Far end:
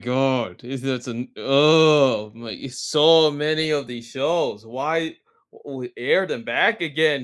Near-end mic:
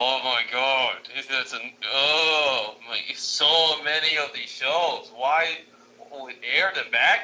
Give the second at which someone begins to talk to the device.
none

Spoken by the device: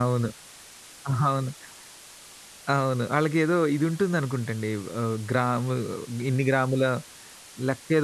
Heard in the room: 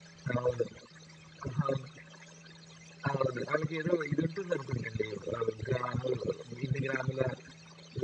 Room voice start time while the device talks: none

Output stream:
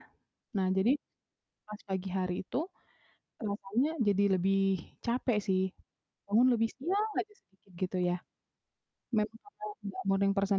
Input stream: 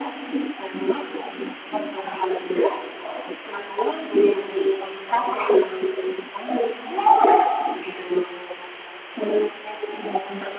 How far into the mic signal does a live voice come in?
none

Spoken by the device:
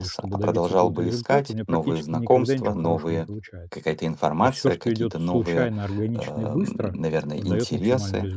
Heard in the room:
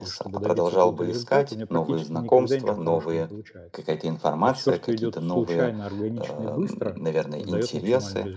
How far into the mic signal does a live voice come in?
none

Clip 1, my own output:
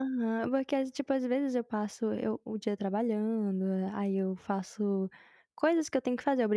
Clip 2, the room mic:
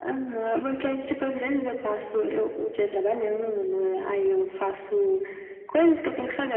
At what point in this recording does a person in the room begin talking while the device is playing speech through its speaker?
none

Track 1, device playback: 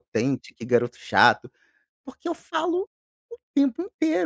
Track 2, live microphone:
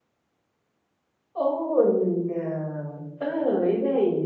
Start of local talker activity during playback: 1.3 s

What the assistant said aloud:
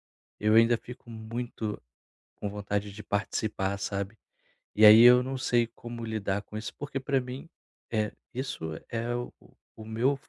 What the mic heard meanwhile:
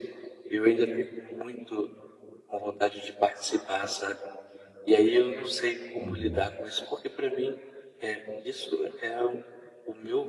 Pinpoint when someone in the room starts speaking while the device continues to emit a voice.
6.0 s

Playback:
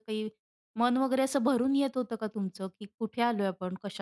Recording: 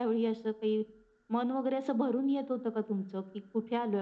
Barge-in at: none

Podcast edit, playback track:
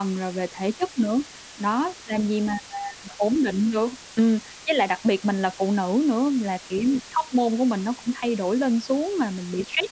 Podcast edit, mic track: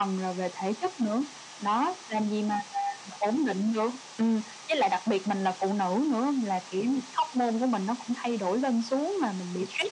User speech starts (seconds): none

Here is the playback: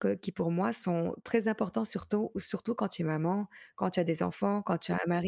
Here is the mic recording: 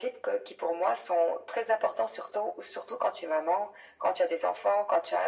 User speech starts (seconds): none

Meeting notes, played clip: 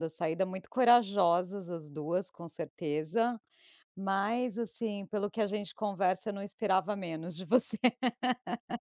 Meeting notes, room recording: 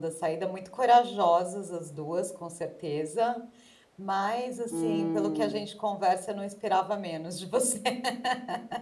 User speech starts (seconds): 4.7 s

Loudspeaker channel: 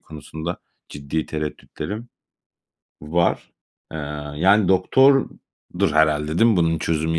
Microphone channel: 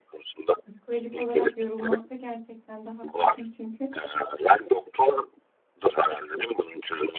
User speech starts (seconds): 0.7 s

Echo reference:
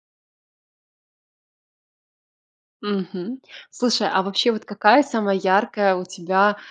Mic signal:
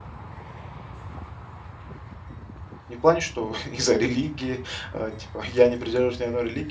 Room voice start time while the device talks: 2.9 s

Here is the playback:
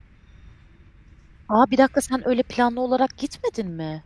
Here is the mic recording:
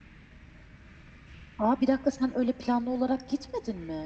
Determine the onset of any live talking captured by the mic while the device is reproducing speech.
none

